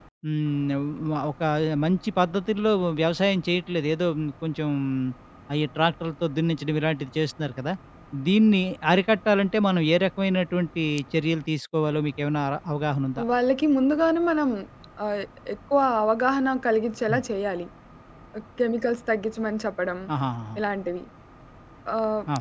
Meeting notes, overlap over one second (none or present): none